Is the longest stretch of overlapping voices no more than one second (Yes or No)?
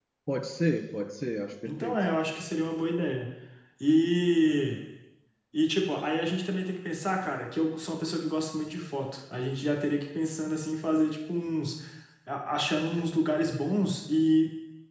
Yes